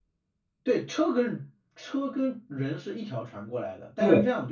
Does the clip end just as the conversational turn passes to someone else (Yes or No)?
No